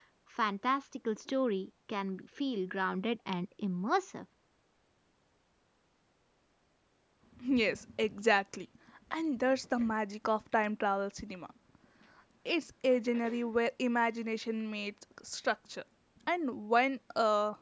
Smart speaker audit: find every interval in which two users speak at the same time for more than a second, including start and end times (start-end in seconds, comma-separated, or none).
none